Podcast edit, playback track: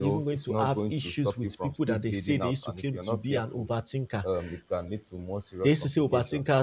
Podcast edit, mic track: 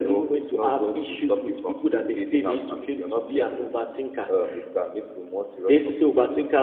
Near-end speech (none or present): none